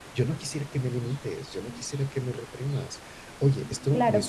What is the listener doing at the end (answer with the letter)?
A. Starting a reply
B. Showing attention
A